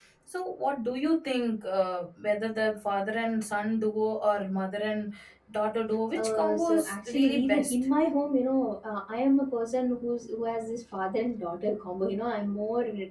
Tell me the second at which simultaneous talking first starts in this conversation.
6.1 s

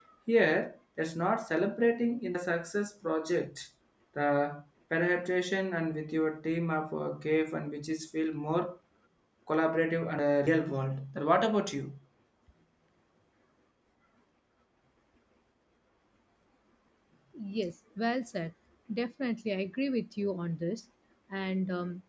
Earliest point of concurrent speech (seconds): none

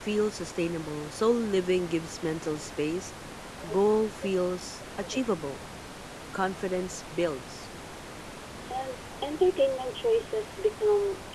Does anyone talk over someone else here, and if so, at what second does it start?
none

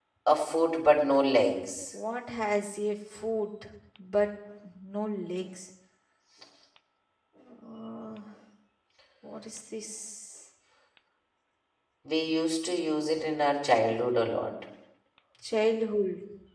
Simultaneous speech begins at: none

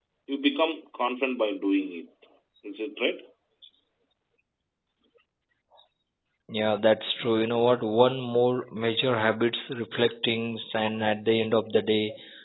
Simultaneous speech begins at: none

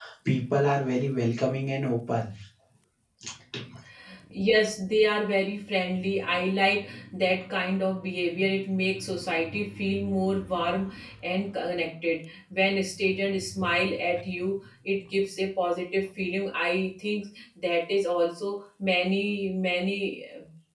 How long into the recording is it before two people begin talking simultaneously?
none

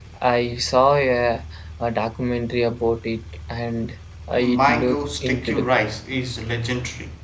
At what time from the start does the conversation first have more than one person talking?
4.4 s

